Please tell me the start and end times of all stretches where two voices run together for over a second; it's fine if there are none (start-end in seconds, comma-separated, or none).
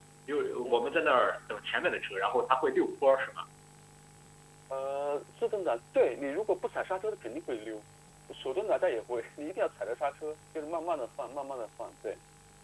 none